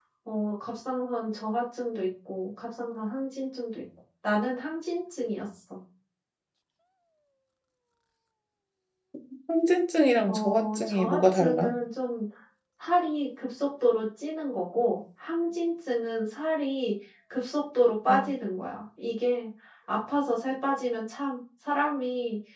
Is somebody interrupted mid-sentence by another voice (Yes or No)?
Yes